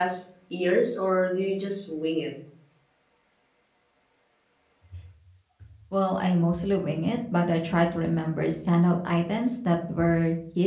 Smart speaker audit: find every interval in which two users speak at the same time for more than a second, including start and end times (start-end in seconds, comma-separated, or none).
none